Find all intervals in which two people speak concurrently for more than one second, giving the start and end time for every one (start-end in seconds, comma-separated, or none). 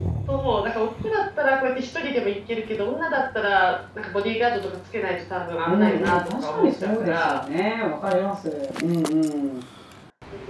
5.6-7.4